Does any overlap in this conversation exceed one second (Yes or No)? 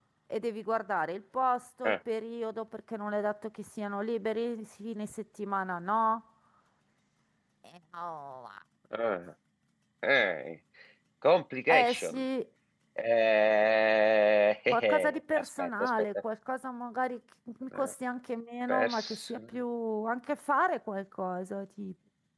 Yes